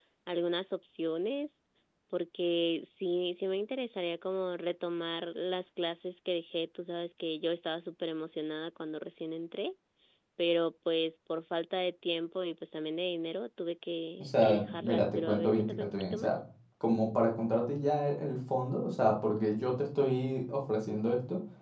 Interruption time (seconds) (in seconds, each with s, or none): 14.2 s